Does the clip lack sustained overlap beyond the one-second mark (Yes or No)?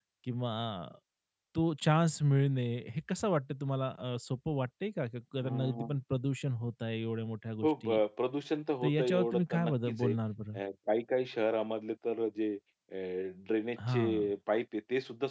No